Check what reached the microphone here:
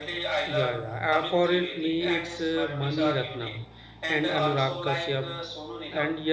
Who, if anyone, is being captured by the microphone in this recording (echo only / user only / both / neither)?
both